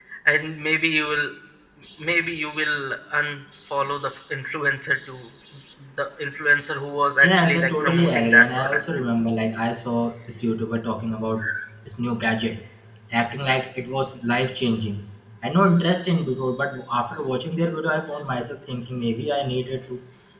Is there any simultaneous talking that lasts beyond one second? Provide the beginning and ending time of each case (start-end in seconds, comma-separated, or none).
7.2-8.8